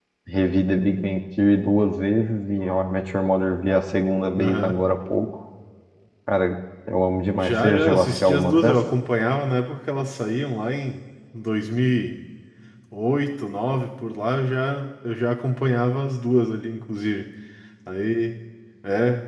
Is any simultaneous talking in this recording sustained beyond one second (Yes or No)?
Yes